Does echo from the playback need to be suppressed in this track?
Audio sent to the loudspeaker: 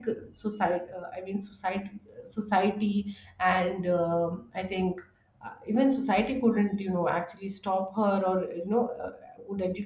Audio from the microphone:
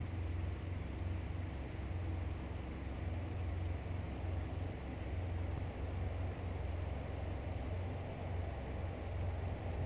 No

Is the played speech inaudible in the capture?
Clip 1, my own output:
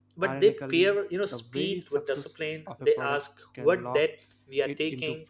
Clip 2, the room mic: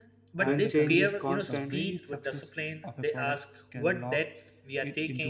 No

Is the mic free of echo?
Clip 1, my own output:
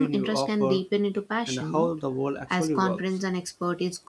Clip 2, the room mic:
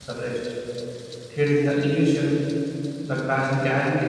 Yes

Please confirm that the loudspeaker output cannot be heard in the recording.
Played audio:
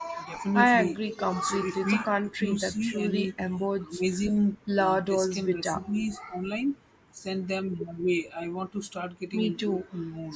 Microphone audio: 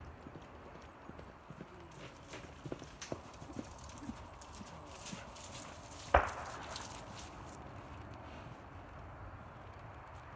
Yes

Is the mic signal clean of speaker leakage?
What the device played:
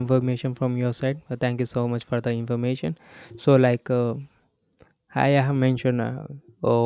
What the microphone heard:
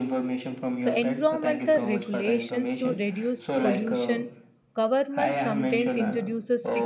No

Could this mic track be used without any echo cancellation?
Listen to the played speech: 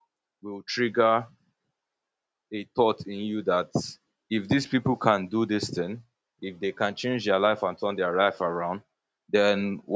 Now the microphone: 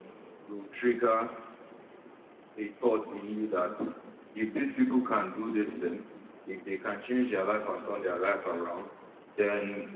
No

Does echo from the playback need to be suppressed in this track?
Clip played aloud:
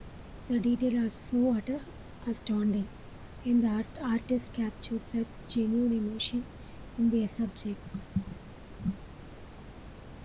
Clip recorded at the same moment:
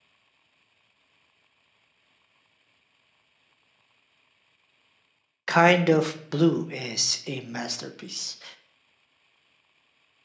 No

